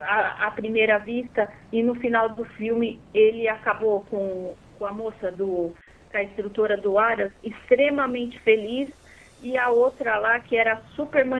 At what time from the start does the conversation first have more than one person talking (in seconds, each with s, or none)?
none